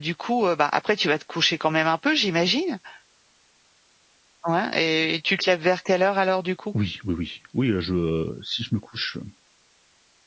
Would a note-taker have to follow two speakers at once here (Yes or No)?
No